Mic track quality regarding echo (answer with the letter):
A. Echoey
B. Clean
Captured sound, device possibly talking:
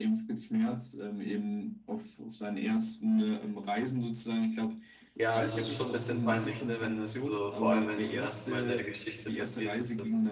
A